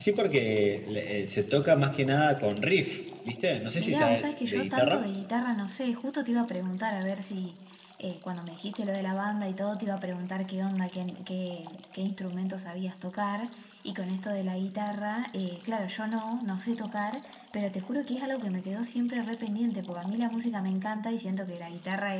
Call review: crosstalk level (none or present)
present